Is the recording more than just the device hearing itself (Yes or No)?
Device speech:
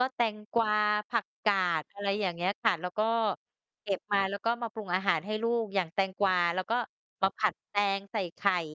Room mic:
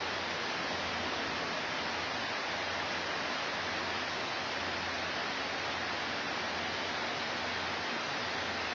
No